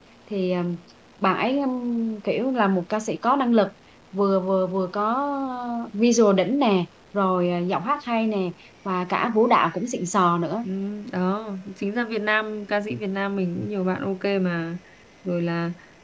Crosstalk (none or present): none